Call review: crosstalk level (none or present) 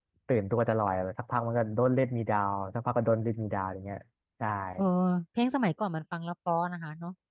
none